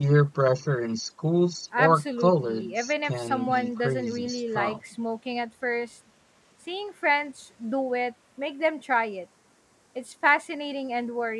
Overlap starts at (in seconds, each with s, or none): 1.7 s